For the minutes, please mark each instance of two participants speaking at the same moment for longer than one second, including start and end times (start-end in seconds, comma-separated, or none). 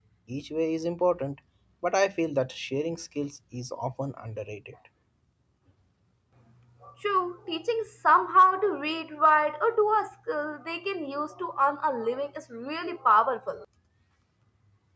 none